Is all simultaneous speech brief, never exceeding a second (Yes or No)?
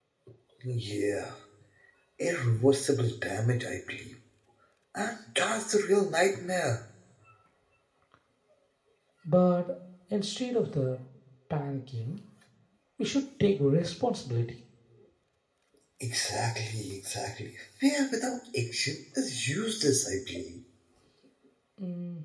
Yes